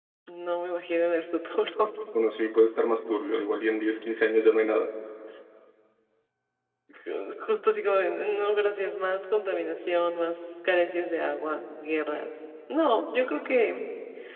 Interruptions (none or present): none